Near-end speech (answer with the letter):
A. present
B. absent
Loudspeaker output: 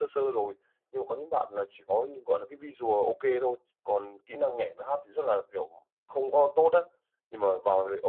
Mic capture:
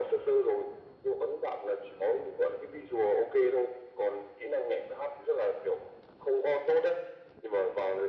B